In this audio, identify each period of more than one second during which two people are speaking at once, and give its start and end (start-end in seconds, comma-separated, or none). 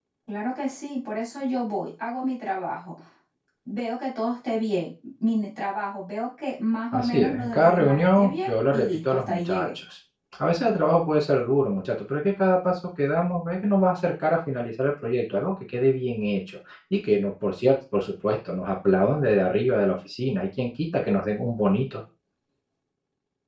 6.9-9.7